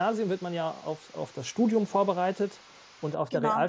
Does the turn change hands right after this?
No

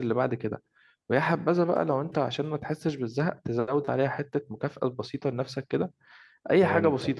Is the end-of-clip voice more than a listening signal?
No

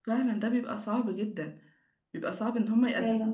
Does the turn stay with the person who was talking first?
Yes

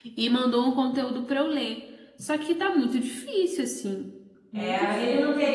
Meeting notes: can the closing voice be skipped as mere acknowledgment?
No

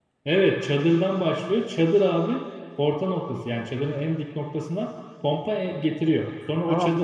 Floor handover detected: Yes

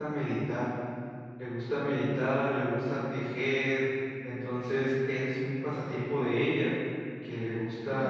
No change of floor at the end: Yes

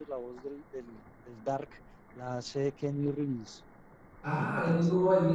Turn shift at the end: Yes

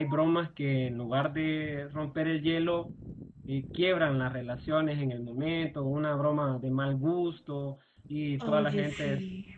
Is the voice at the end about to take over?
No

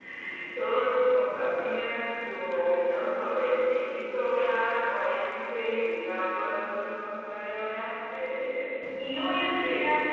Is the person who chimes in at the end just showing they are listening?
Yes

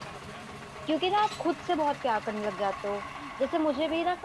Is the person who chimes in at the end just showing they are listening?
Yes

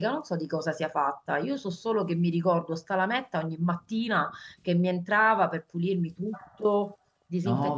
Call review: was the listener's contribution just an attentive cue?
Yes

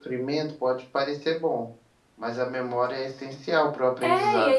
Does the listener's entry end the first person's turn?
Yes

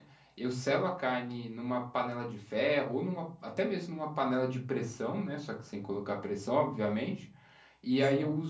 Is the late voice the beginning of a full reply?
No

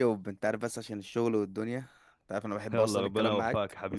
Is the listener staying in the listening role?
No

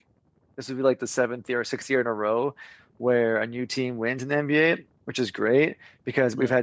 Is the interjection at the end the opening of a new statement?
No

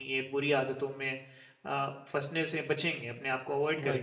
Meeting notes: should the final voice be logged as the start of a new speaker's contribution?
Yes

